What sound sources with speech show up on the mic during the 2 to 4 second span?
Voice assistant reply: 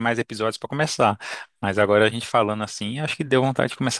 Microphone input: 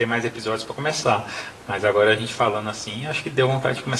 echo only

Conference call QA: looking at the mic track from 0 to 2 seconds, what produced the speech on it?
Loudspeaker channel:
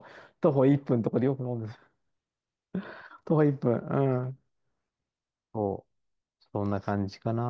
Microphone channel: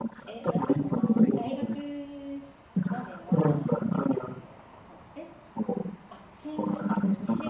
both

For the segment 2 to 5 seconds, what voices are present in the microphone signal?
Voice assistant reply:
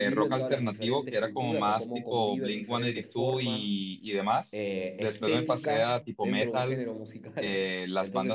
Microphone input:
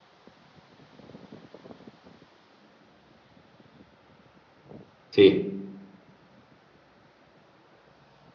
neither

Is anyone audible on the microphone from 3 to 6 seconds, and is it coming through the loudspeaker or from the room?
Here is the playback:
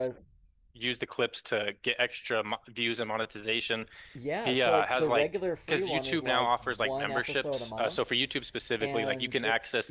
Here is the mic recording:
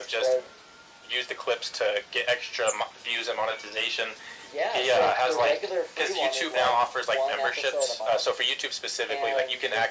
echo only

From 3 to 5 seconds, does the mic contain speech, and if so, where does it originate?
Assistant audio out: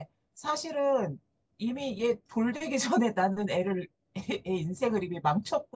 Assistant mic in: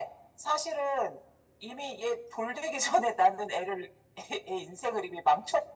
echo only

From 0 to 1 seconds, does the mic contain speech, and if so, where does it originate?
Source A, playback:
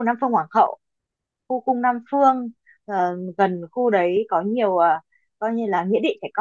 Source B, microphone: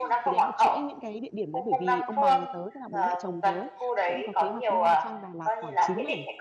both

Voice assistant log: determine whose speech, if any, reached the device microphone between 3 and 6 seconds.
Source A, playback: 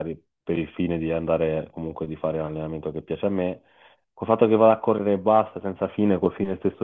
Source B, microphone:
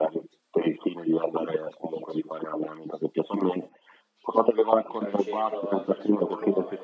both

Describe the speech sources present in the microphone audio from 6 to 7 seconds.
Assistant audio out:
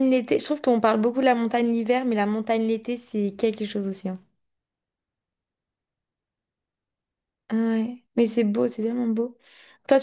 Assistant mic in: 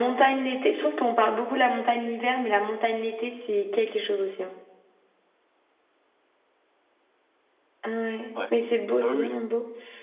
neither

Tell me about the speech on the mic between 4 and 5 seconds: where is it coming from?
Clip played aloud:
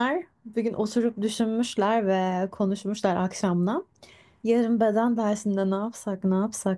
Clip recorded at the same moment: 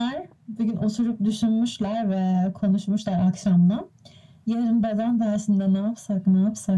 echo only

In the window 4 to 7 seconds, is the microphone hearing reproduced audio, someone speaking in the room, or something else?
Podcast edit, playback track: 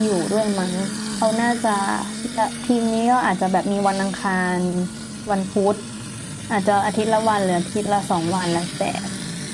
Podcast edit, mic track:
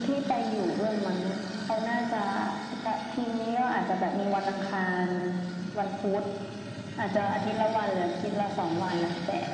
echo only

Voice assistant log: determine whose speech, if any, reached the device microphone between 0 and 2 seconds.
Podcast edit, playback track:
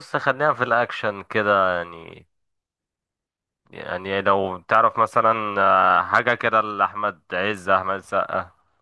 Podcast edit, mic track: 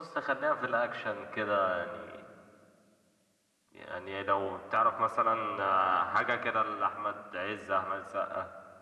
echo only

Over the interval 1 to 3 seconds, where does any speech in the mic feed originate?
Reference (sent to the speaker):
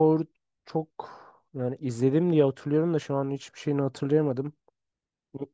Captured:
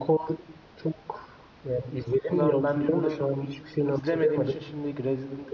both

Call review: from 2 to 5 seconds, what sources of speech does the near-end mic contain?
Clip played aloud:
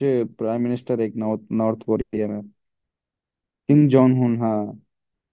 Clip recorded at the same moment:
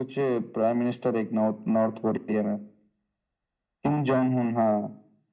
echo only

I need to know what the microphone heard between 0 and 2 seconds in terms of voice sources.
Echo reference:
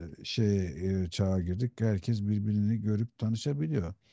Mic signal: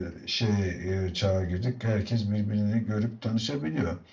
echo only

